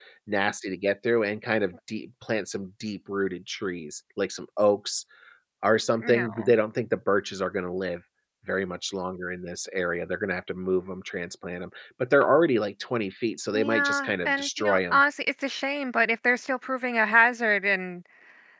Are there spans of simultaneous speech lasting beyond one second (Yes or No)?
Yes